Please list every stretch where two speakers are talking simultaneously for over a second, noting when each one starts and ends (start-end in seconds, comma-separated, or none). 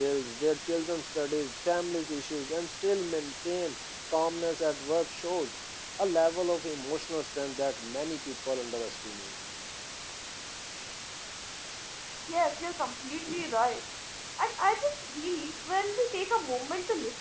none